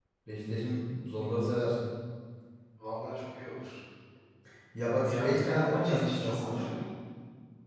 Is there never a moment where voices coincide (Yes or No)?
No